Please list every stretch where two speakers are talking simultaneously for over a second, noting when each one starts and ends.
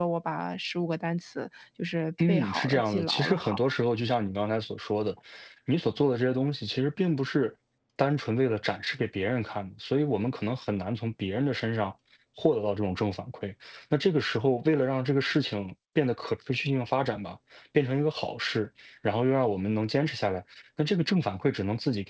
2.3-3.6

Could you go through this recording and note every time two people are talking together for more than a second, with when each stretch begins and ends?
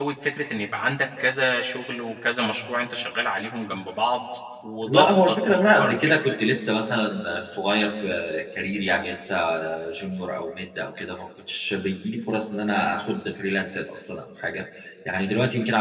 4.8-6.1

